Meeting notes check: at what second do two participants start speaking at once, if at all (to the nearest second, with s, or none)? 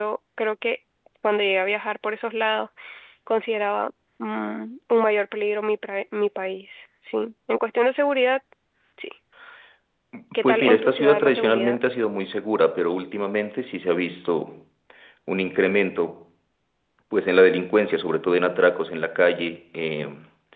10 s